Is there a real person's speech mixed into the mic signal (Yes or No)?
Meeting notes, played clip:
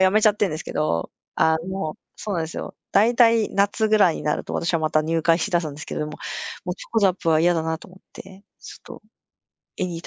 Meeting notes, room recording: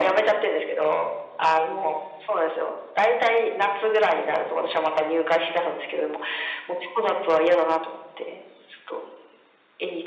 No